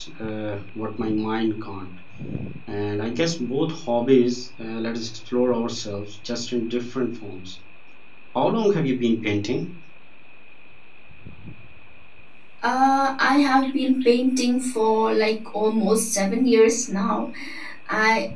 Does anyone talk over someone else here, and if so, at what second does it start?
none

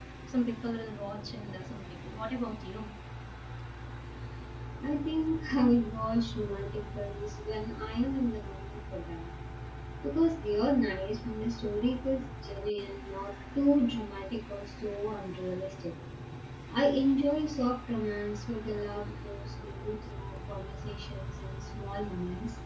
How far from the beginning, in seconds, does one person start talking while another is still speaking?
none

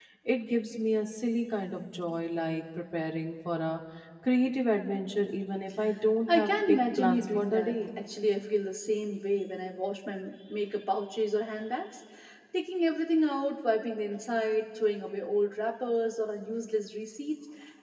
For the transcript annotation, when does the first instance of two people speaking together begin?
6.3 s

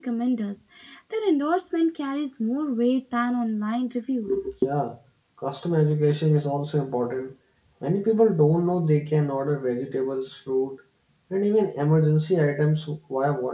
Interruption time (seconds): none

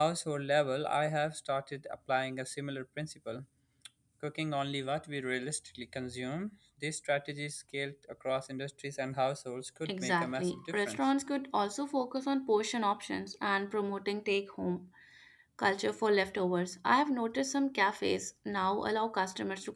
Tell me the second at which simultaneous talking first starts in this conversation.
9.8 s

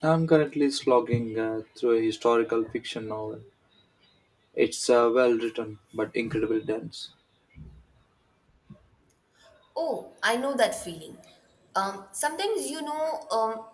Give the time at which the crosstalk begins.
none

